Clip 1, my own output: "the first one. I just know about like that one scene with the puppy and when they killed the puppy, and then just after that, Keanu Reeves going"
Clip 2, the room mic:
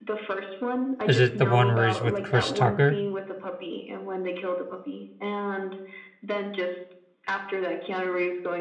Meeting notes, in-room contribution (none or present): present